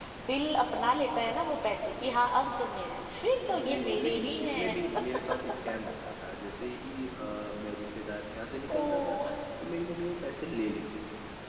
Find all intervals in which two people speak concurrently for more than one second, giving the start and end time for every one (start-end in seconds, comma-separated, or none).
3.5-4.7